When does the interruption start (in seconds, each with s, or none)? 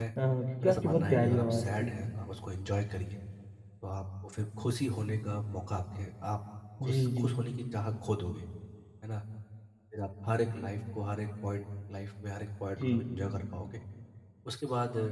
0.6 s